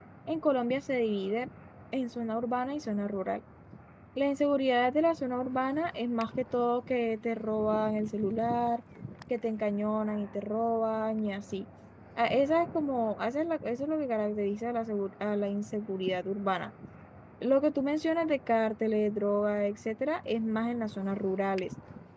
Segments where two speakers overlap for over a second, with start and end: none

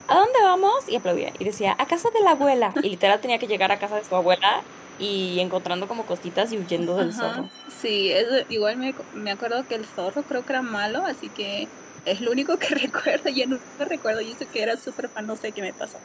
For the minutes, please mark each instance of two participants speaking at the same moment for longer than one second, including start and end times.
none

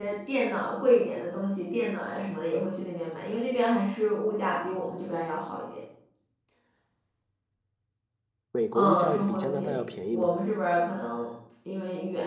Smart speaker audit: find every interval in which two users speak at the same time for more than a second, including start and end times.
8.7-10.3

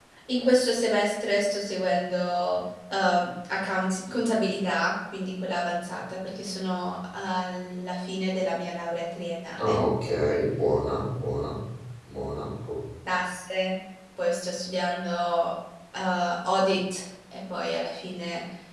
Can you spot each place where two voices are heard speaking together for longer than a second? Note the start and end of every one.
none

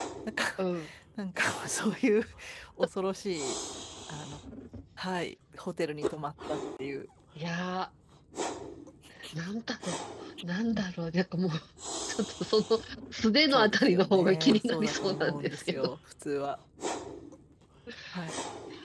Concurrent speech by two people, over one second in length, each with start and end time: 13.5-15.9

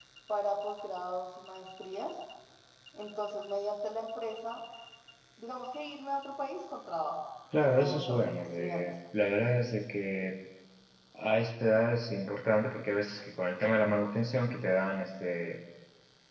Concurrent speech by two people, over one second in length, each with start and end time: 7.6-8.8

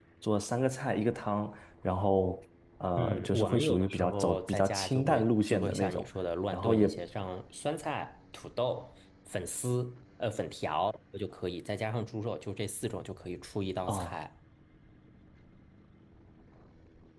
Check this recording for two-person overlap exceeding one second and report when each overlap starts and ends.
3.0-6.1

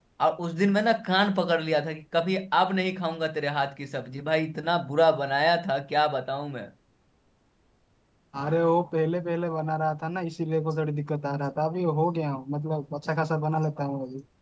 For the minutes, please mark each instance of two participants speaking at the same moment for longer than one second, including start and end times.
none

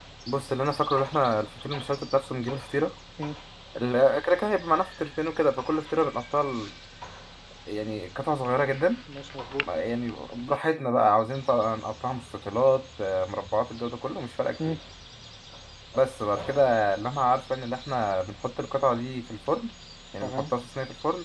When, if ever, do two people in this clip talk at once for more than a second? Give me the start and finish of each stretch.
none

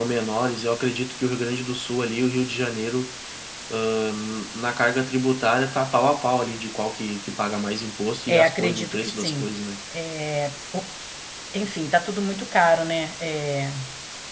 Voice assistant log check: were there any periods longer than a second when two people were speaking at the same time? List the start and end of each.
8.3-9.5

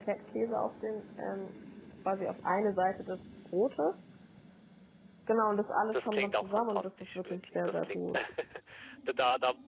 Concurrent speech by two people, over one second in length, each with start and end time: 5.9-8.0

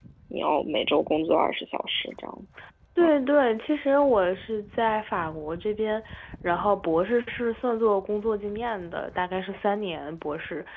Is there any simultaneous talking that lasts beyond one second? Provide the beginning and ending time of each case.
none

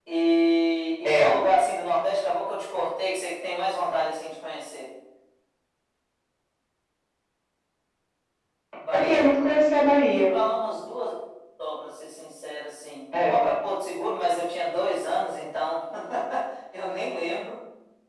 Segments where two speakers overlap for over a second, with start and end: none

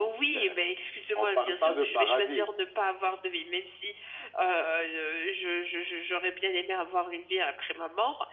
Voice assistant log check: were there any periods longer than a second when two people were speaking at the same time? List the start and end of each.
1.2-2.5

